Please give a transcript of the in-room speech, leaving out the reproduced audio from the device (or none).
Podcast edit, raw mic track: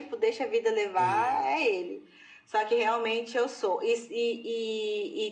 É,